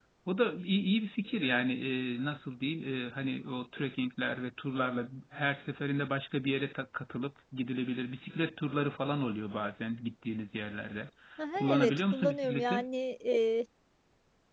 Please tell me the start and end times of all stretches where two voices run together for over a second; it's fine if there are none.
11.6-12.8

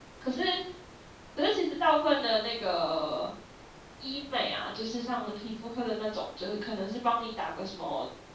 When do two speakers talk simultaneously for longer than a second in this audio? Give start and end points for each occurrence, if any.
none

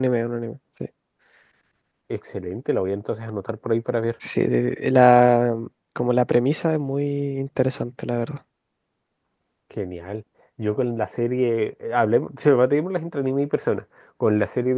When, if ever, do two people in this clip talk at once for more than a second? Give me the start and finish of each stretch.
none

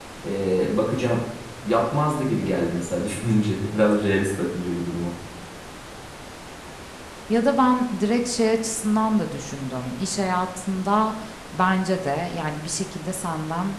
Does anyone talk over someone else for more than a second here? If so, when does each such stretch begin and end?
none

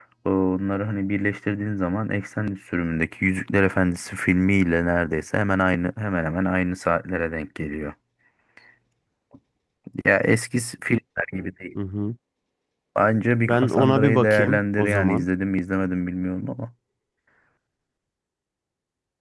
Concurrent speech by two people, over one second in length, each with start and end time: 13.4-15.3

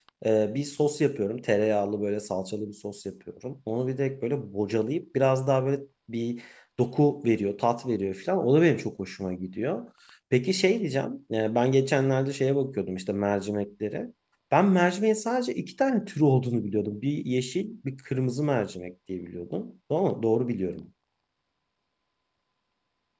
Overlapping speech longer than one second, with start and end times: none

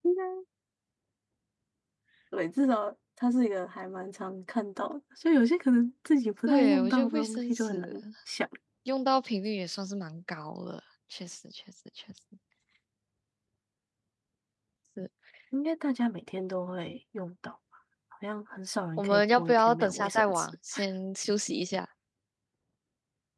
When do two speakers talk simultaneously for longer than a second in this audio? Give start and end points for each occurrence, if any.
6.5-7.9, 19.0-20.5

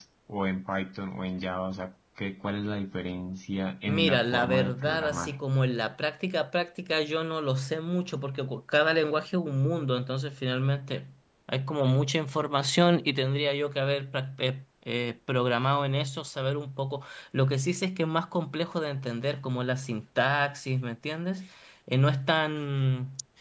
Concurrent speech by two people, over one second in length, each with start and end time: 3.9-5.3

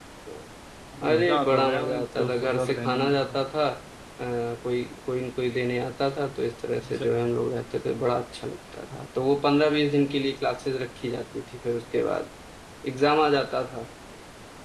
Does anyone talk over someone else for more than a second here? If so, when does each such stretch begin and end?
1.1-3.4

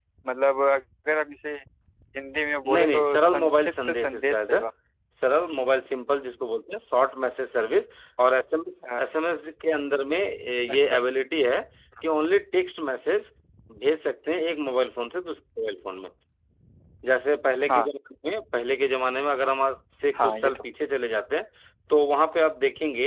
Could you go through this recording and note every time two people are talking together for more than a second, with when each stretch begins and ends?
2.6-4.6

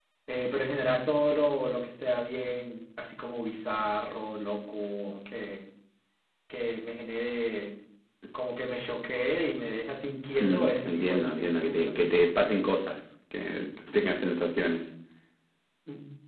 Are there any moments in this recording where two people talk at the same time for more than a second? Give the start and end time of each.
10.4-12.1

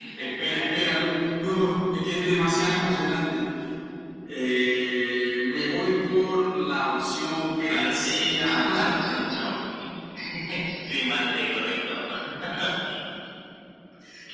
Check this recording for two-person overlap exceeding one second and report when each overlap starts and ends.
7.7-9.4

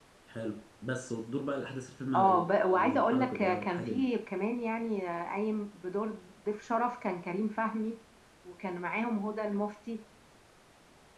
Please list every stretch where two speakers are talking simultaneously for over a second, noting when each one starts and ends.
2.1-4.0

